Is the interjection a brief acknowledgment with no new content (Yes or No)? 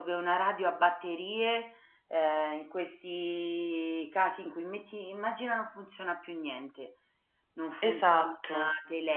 Yes